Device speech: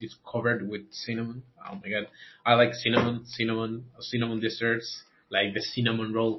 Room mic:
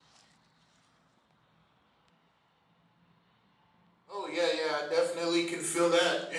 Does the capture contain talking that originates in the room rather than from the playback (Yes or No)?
Yes